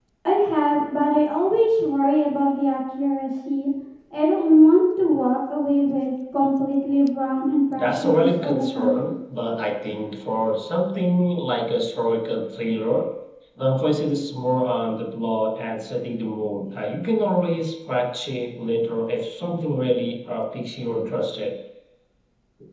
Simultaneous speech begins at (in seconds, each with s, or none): 7.8 s